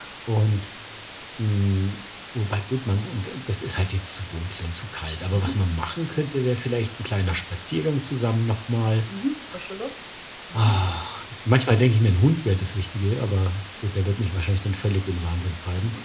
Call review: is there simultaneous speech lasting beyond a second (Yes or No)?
No